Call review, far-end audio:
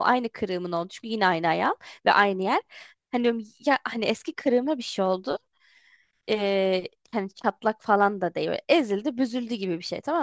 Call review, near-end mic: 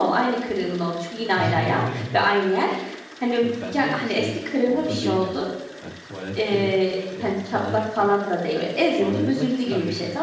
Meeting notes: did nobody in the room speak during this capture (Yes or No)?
No